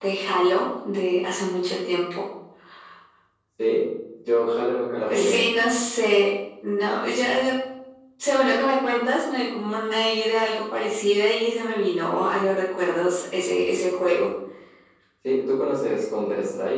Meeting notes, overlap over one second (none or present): none